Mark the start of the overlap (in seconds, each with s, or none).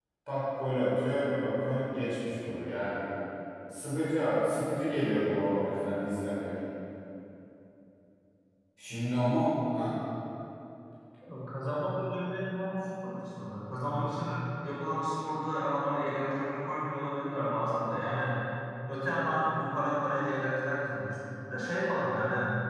none